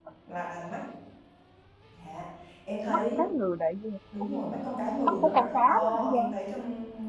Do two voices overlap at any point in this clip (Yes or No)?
Yes